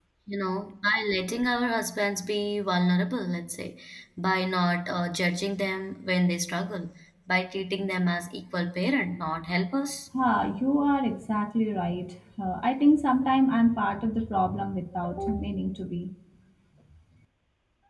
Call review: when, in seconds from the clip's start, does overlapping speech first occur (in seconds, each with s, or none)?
none